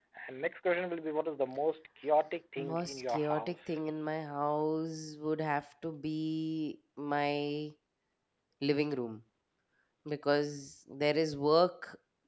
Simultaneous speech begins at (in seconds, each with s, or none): 2.6 s